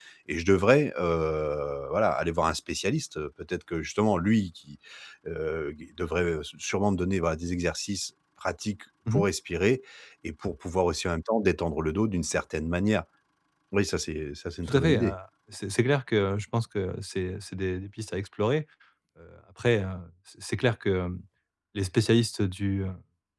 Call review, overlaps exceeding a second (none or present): none